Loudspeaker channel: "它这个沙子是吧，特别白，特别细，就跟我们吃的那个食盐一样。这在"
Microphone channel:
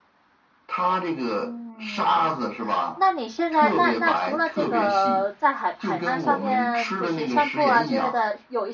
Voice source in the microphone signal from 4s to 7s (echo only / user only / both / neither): both